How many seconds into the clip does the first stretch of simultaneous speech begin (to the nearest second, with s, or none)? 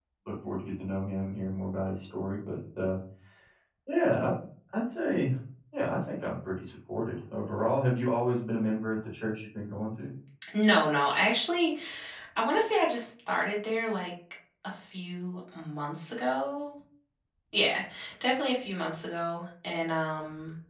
none